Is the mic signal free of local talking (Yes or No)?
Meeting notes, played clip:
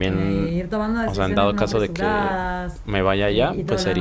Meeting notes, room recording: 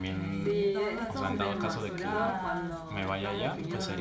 No